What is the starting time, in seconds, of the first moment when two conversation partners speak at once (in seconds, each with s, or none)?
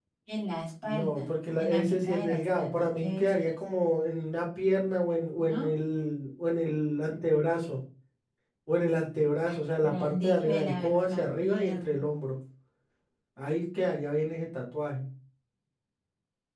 0.8 s